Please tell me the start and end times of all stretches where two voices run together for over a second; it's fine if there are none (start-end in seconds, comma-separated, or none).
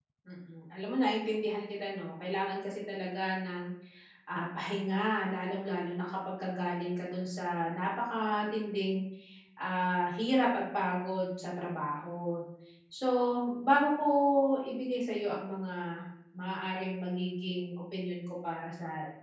none